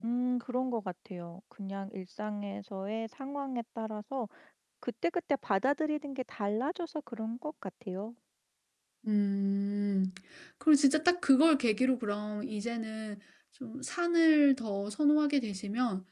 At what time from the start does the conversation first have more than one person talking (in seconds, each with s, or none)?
none